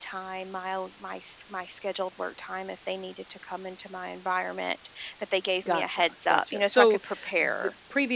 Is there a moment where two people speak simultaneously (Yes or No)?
Yes